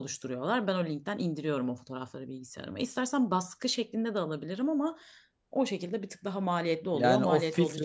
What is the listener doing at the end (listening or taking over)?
taking over